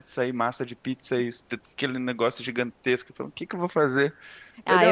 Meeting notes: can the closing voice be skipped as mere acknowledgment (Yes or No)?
No